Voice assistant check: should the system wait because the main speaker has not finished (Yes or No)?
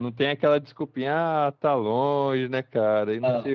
Yes